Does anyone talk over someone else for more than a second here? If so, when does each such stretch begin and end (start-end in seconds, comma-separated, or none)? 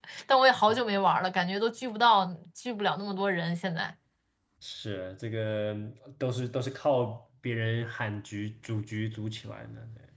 none